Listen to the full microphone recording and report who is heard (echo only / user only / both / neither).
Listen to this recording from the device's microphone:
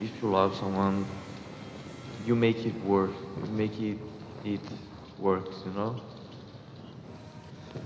echo only